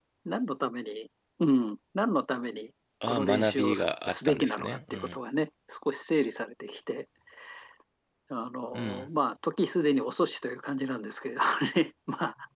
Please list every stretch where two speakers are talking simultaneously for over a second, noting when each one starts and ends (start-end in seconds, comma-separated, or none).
3.1-5.2